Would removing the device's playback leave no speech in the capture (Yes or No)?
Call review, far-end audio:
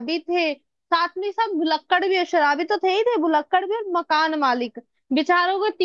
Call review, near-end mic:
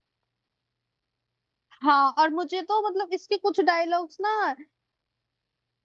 No